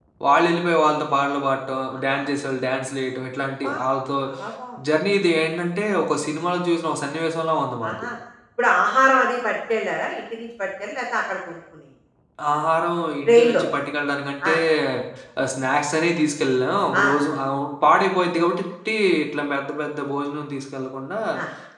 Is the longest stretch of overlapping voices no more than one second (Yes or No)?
Yes